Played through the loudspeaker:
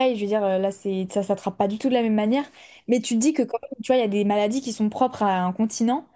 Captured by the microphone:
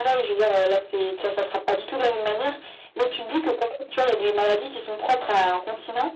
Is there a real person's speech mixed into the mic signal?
No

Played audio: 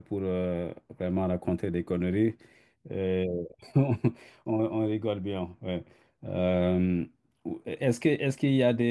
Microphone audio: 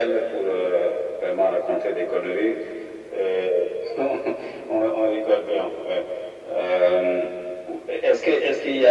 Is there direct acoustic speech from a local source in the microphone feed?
No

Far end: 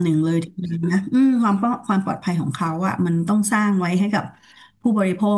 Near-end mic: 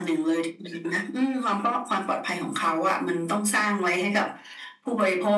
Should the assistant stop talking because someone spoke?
No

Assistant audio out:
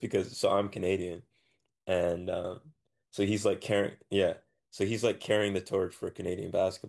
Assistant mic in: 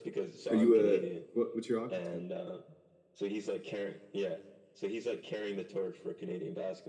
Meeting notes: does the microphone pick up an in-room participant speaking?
Yes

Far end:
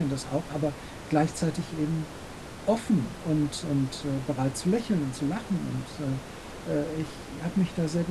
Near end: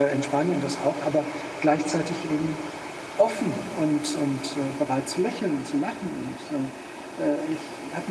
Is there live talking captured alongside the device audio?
No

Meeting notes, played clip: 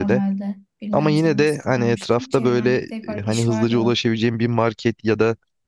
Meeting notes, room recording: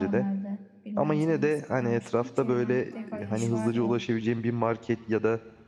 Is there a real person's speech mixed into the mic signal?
Yes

